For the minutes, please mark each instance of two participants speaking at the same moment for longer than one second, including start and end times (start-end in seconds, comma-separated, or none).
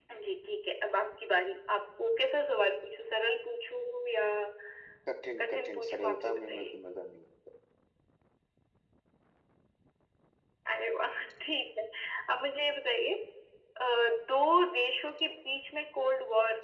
5.4-6.7